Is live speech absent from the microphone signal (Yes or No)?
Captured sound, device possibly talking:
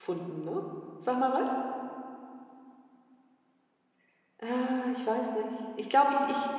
No